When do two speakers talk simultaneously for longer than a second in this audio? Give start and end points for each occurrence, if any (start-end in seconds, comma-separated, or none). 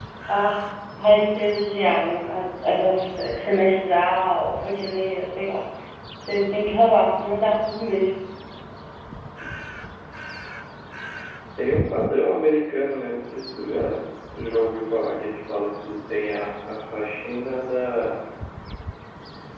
none